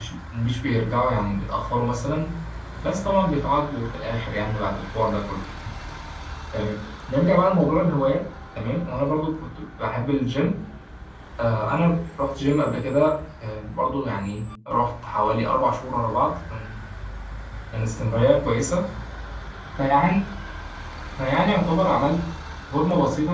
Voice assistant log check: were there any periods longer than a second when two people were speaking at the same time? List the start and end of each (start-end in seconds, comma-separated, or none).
none